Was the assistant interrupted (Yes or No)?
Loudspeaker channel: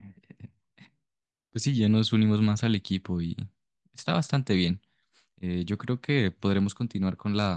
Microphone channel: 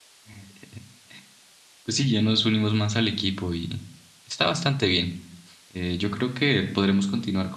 No